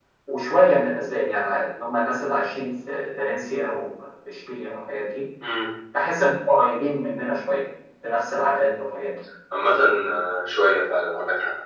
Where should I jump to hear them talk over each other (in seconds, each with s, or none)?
none